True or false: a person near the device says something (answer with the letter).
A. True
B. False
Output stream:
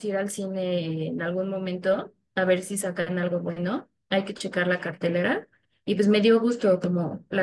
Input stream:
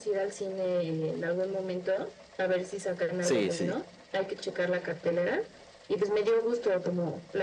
A